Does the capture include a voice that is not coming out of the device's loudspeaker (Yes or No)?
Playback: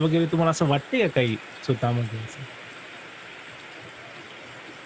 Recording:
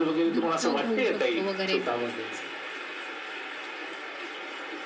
Yes